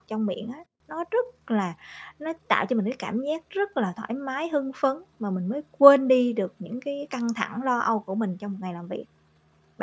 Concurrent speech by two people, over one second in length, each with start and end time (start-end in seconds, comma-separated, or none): none